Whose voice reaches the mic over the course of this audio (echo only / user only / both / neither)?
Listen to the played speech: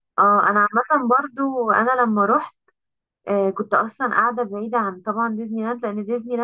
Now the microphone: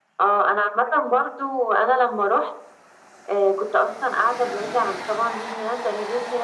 echo only